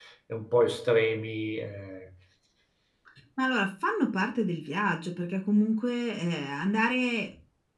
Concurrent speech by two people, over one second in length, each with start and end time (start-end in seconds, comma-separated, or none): none